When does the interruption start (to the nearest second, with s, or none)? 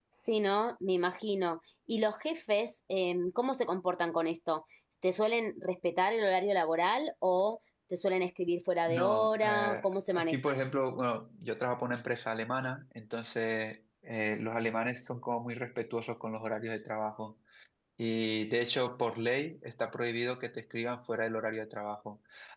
9 s